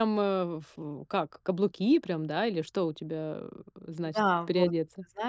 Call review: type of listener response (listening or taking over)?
taking over